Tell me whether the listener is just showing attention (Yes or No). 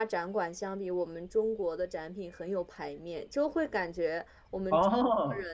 Yes